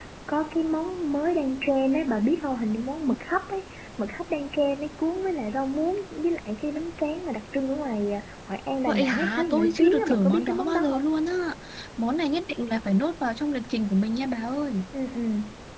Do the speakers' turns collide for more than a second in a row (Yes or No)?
Yes